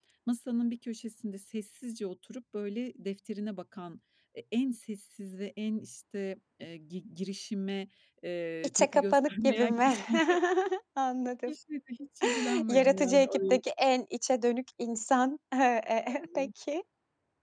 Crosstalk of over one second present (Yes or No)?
Yes